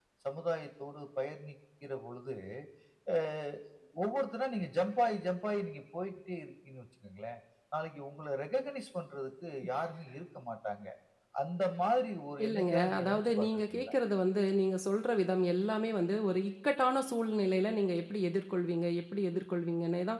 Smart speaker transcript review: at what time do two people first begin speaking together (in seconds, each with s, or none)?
12.4 s